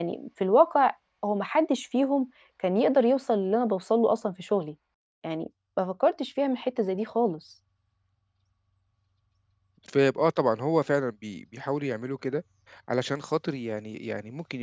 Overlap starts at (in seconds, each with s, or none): none